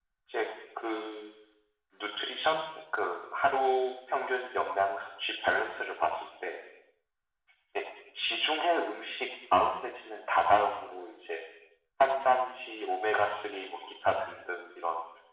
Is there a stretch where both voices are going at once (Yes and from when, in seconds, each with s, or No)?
No